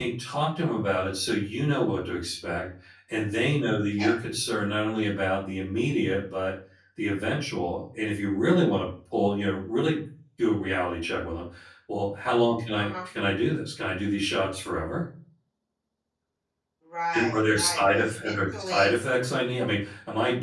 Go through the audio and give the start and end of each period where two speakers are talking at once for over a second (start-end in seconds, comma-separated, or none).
17.1-18.9